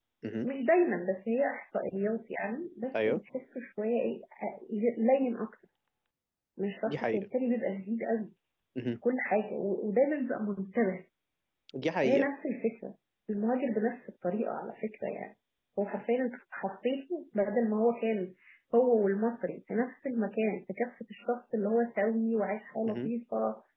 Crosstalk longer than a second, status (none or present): none